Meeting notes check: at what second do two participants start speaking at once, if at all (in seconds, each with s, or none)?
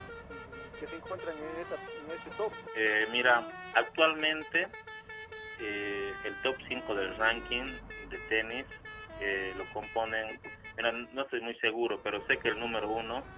none